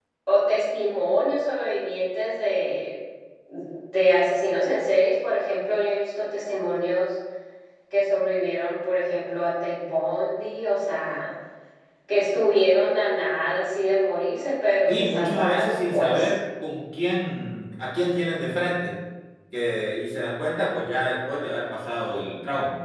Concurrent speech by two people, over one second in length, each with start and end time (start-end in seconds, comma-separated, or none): 14.9-16.3